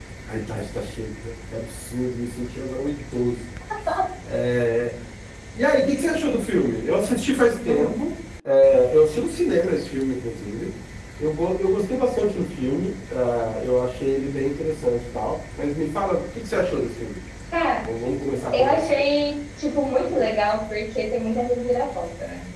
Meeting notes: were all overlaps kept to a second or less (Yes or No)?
Yes